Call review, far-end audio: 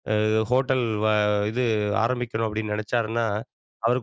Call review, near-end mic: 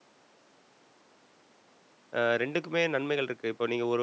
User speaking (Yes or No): Yes